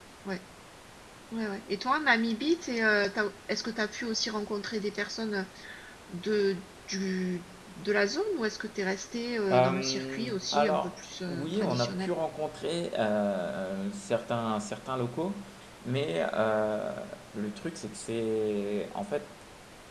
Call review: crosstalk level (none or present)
present